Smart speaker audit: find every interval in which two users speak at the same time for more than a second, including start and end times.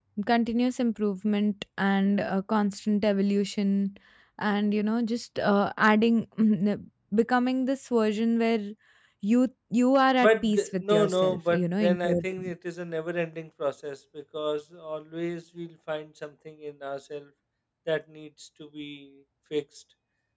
10.2-12.5

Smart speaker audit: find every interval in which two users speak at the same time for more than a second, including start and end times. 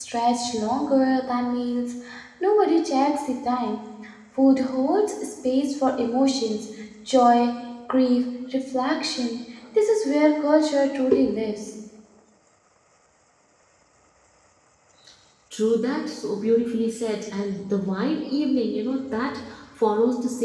none

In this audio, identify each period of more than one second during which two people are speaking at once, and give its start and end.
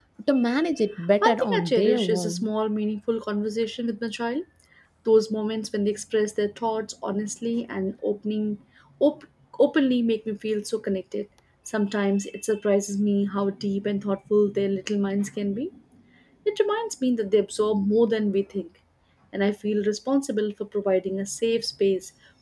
1.2-2.5

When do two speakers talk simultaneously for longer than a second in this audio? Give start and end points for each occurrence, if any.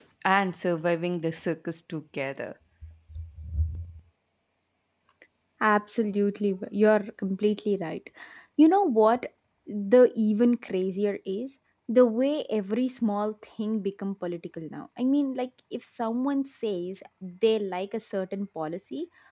none

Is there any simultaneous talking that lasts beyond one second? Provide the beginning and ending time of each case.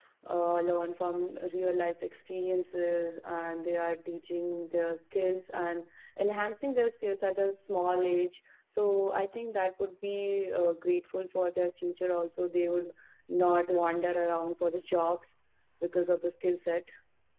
none

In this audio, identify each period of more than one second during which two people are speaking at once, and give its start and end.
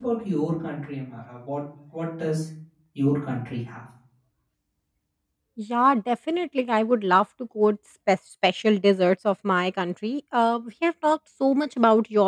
none

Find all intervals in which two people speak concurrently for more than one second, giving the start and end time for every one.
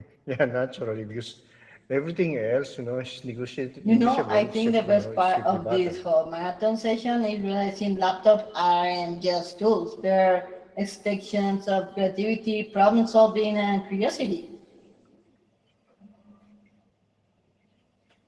3.9-6.0

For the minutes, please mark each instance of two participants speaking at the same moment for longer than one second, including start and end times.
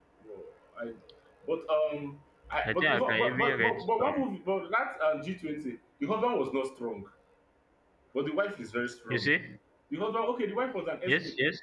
2.6-4.2

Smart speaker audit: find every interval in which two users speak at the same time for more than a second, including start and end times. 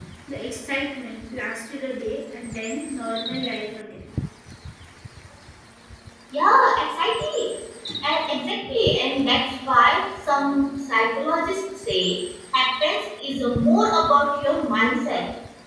none

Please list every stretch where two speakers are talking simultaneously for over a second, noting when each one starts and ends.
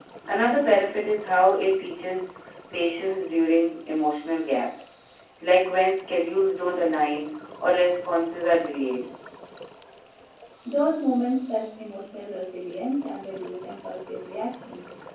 none

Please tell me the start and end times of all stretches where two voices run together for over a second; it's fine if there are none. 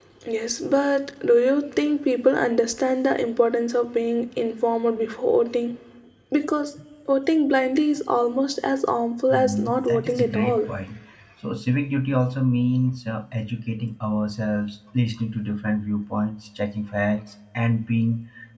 9.3-10.7

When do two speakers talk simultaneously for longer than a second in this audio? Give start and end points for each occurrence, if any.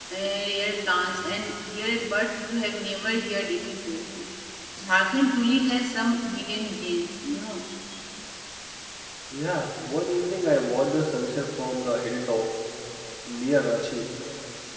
none

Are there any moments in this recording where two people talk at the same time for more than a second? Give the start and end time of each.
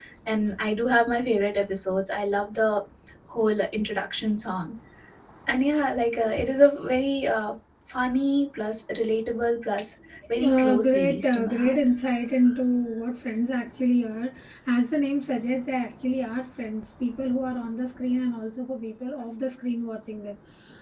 10.4-11.8

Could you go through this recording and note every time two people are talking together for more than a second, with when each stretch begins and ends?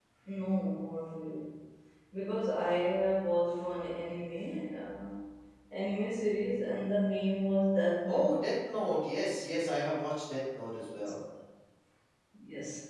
none

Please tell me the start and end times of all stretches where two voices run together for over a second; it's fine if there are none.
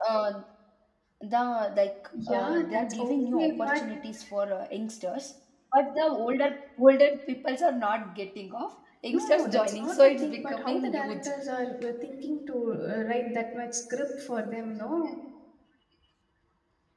2.3-3.8, 9.1-11.3

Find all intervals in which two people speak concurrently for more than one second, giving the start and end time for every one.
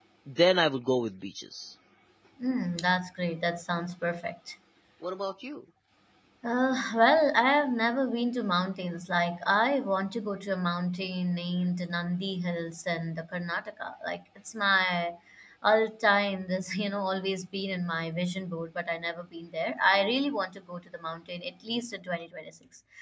none

